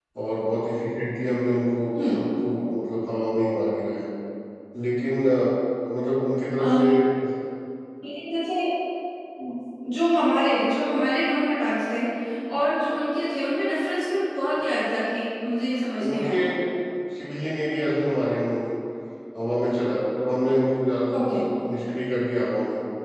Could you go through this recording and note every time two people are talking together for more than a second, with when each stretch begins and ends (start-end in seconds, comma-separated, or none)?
none